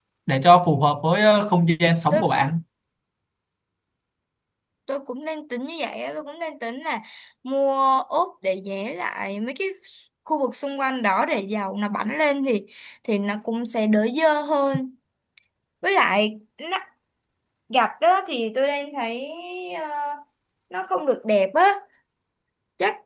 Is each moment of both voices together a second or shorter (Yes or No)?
Yes